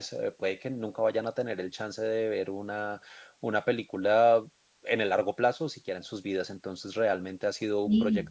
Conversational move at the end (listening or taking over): listening